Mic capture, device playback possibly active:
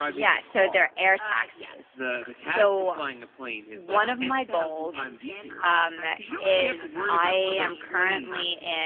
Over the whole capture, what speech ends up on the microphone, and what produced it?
both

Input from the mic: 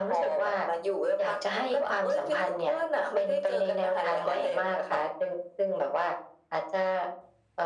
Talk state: echo only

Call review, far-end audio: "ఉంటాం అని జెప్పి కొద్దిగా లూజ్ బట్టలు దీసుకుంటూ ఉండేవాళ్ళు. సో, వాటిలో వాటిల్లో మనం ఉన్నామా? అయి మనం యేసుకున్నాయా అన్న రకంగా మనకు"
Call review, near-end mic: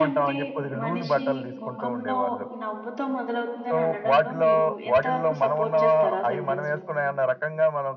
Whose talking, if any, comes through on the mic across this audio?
both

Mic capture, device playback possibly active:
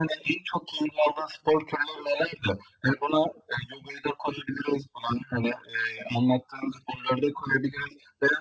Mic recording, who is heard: echo only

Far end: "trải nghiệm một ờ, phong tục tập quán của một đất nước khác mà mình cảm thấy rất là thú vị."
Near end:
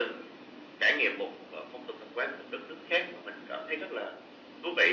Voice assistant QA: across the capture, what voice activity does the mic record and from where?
echo only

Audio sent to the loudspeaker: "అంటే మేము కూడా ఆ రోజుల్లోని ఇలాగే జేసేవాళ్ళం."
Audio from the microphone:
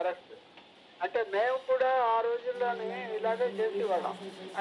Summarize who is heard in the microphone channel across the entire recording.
both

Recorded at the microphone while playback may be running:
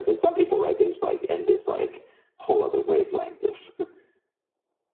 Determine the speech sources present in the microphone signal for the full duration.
echo only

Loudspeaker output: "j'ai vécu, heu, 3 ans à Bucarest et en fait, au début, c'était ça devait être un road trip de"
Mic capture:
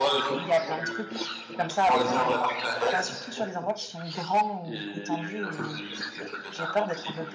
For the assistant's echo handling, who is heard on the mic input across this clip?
both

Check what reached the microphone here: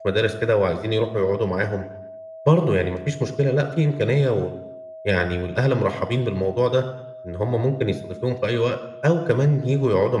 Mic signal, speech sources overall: user only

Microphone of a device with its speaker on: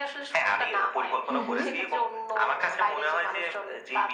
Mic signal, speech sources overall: both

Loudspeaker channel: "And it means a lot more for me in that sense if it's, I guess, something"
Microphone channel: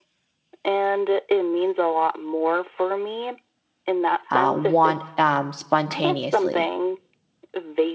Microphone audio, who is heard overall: both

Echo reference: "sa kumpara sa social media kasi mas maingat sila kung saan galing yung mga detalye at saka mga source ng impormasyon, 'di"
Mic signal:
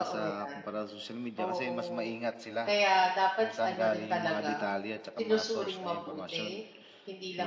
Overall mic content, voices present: both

